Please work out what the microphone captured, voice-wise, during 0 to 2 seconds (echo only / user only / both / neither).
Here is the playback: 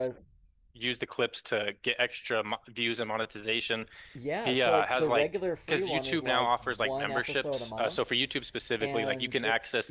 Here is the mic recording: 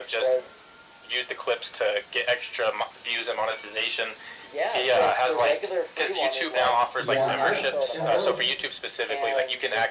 echo only